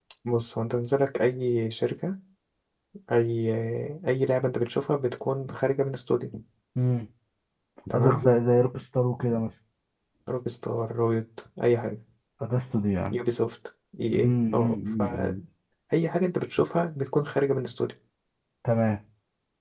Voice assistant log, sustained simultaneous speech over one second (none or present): present